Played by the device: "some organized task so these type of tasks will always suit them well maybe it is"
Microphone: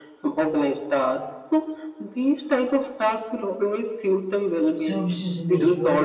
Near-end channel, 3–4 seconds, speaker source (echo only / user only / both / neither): echo only